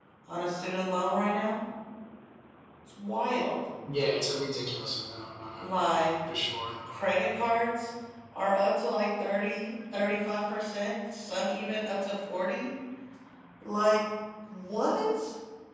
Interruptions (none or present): none